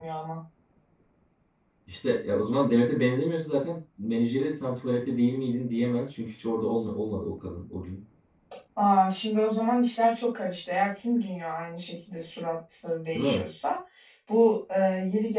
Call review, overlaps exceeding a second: none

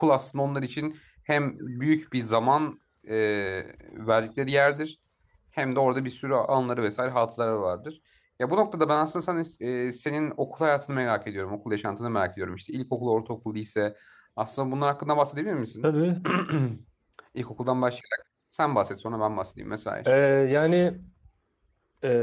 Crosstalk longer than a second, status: none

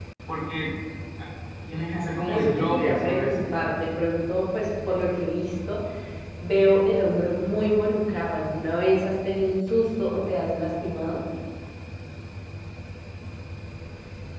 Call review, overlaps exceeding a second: present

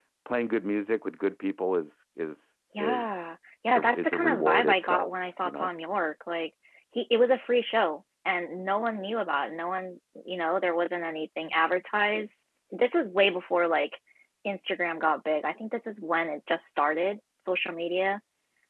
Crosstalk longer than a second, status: present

